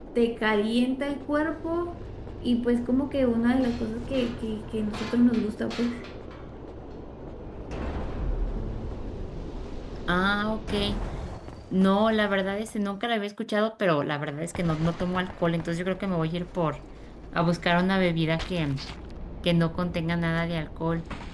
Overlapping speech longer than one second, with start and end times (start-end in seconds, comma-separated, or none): none